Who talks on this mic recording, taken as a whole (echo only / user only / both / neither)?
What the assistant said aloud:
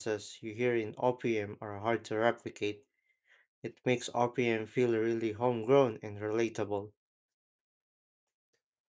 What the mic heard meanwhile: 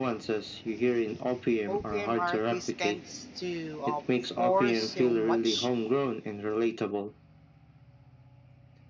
both